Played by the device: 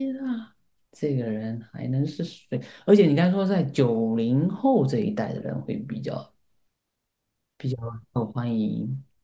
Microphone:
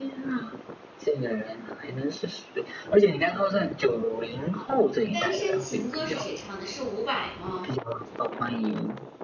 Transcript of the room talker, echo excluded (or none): 单身情歌是谁唱的？是伍佰吗？